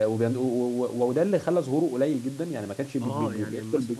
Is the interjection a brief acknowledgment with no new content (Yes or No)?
No